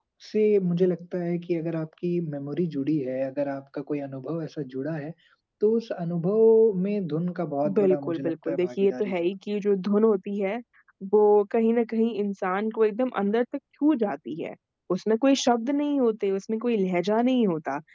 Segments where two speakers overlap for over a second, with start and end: 7.7-9.1

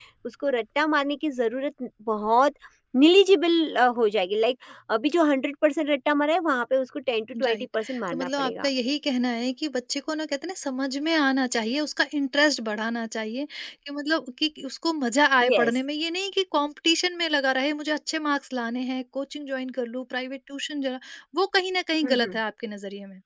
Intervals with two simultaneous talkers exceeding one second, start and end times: 7.5-8.7

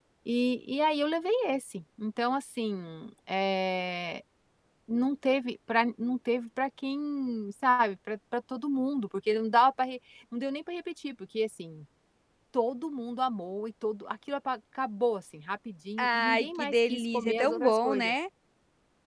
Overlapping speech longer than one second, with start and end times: 16.0-18.1

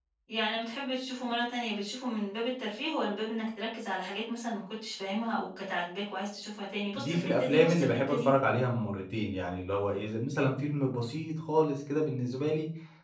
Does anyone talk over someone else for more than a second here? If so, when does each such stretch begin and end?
6.9-8.3

